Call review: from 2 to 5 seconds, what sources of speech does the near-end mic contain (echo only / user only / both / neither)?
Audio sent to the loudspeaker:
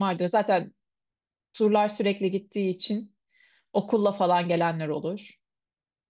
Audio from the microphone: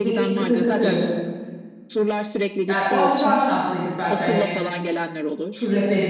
both